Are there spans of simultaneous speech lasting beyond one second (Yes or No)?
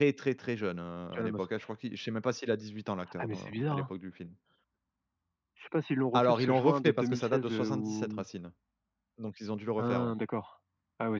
Yes